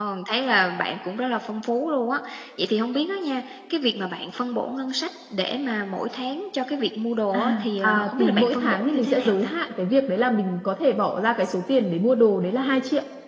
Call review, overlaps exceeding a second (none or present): present